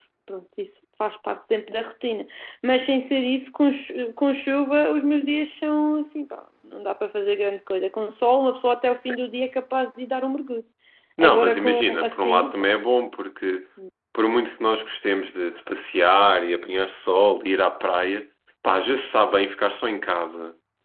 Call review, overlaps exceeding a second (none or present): present